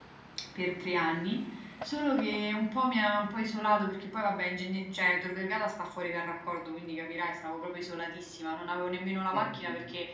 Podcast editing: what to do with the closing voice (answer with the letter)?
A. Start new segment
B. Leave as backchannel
B